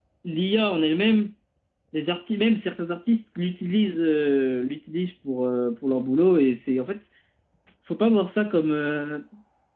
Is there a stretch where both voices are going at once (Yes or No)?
No